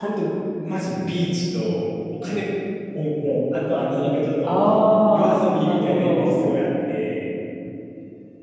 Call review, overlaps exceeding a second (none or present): present